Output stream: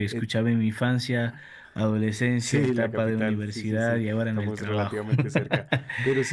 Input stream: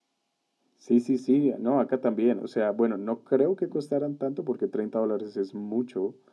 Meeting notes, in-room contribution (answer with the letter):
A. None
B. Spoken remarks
B